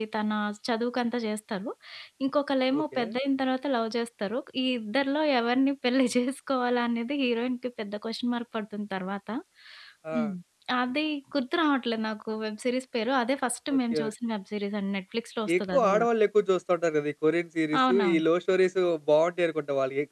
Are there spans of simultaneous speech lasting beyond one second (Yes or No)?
No